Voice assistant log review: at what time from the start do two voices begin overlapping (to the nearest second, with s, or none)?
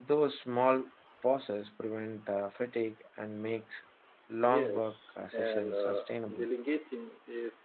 4 s